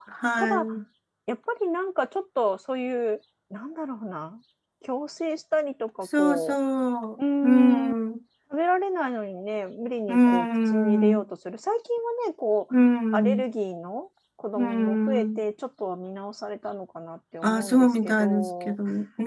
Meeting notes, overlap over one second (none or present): present